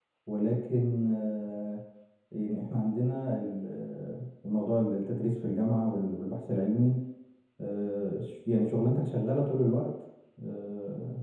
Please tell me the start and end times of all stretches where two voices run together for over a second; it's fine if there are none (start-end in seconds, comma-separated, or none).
none